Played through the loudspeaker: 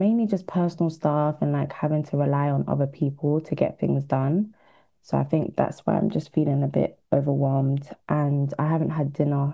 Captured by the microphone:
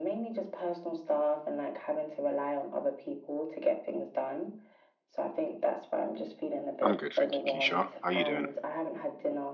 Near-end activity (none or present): present